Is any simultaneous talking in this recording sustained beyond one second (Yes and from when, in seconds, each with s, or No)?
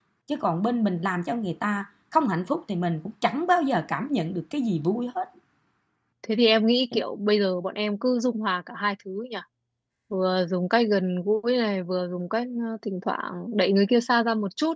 No